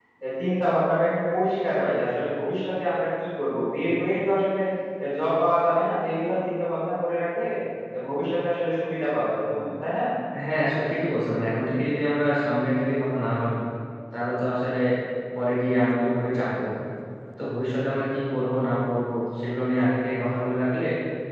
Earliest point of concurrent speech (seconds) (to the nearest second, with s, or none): none